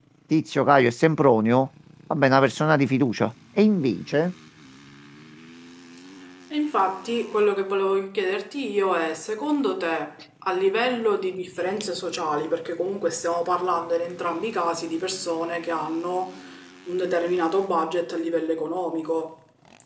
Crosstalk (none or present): none